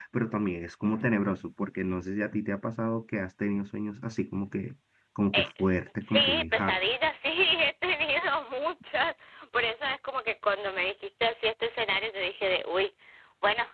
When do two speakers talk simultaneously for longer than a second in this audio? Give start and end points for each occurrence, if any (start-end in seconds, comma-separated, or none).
5.3-6.8